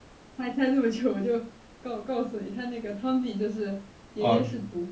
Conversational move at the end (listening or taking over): listening